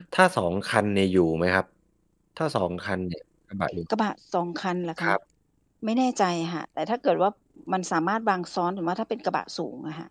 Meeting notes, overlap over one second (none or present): none